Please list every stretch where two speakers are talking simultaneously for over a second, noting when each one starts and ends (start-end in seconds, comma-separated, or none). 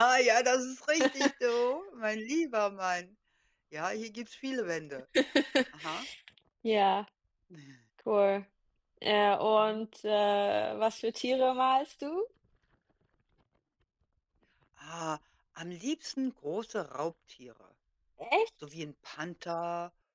none